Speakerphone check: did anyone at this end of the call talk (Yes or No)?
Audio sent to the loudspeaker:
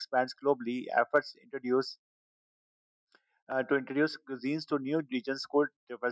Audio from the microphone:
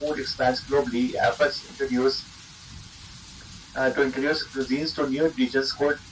No